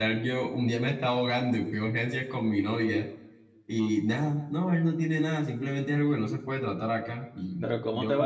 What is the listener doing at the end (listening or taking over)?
taking over